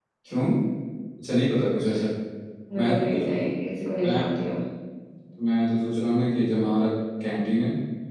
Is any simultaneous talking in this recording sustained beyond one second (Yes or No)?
No